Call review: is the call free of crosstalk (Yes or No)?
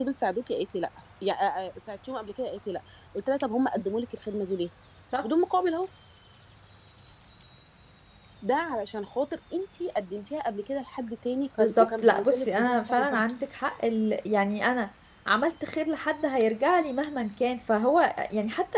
No